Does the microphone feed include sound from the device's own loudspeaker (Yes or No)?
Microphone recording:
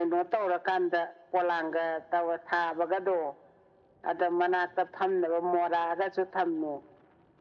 Yes